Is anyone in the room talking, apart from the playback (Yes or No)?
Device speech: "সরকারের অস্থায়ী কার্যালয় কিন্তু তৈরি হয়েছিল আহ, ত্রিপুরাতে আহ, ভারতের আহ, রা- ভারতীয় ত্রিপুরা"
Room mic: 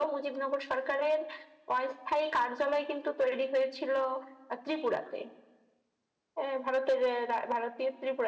No